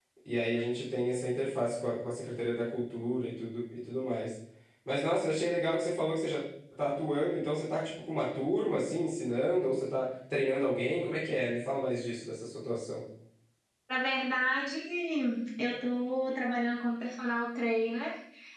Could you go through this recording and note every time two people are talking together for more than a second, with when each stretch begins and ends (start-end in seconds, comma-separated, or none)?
none